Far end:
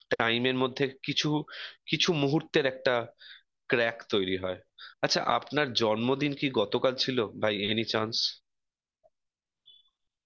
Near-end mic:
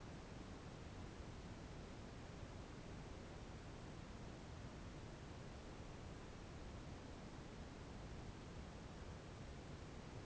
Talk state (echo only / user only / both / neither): neither